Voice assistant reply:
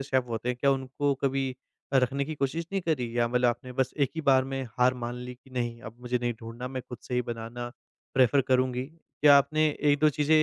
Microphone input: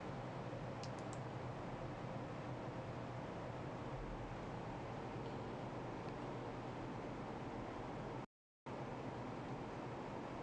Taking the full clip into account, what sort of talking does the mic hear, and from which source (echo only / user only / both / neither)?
neither